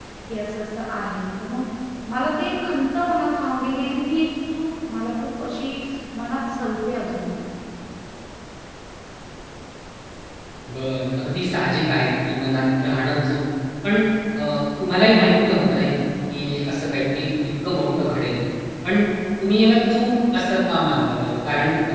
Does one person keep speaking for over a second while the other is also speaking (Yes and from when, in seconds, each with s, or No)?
No